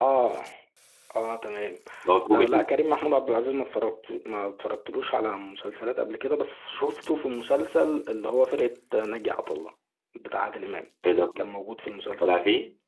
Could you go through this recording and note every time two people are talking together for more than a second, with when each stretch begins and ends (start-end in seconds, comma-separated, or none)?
none